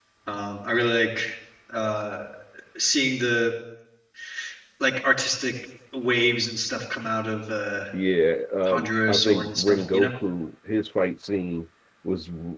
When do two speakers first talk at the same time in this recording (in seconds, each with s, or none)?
8.7 s